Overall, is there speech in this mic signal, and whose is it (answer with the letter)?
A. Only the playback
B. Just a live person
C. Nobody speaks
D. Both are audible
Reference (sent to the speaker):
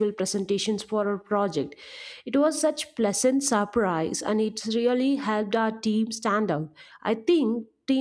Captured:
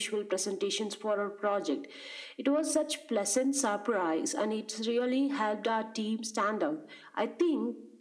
A